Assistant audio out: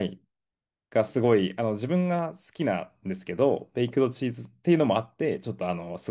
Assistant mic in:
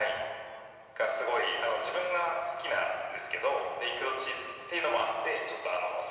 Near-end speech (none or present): none